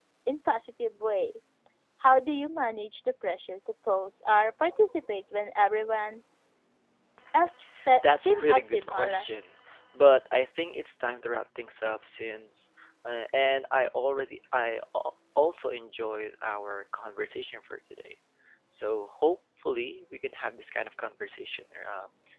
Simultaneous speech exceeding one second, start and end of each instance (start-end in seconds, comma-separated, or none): 8.0-9.3